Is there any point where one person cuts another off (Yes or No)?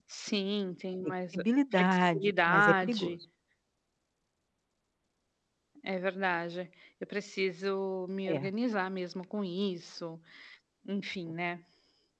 Yes